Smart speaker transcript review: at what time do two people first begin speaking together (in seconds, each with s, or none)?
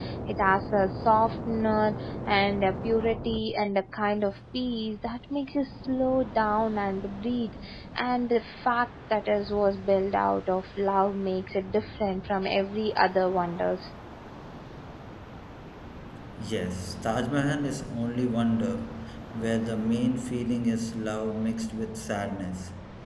none